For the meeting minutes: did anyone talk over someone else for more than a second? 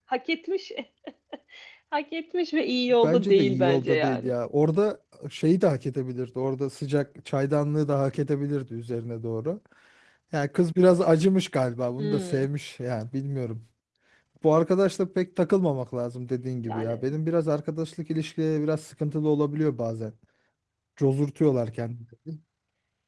Yes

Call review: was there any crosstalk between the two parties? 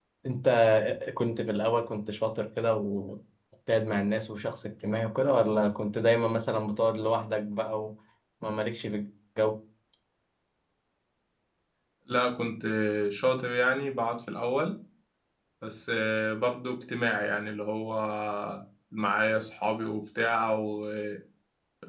No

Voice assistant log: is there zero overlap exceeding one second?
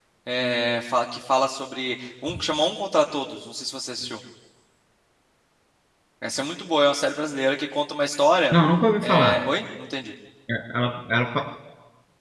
Yes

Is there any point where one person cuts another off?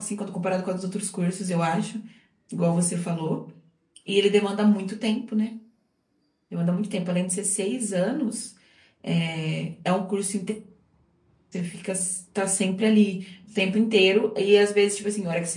No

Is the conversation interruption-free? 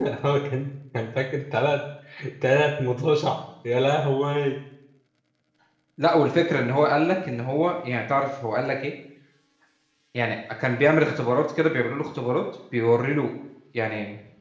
Yes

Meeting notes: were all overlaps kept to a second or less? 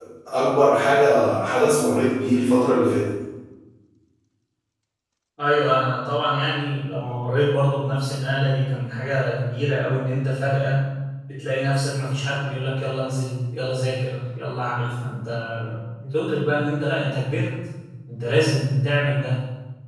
Yes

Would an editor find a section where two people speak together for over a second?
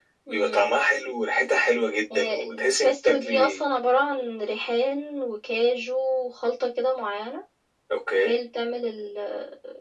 Yes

